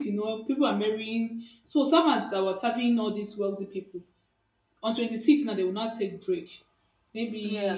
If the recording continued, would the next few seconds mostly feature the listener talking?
No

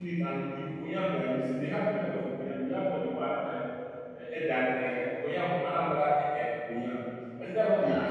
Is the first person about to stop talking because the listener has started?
No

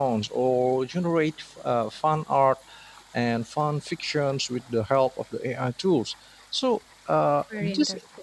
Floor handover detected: No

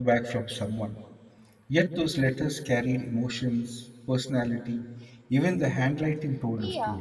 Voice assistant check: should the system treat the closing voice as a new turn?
Yes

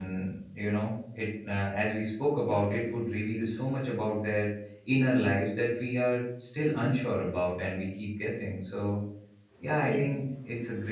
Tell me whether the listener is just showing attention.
Yes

